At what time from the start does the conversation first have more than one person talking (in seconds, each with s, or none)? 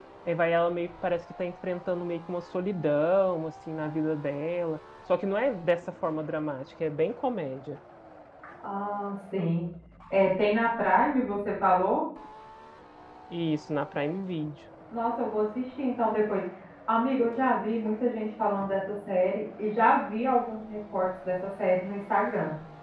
none